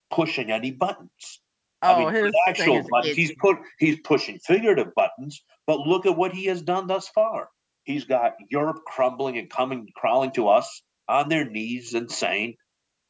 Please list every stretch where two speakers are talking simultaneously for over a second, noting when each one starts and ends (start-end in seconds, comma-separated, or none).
1.9-3.2